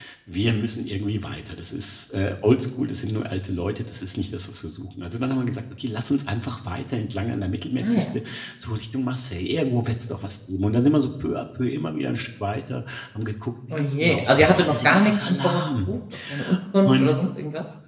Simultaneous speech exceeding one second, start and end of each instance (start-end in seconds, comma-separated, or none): 13.7-15.9